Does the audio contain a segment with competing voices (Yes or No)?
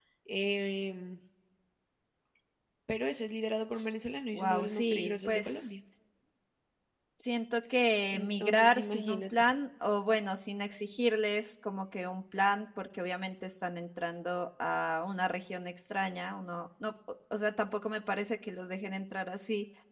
Yes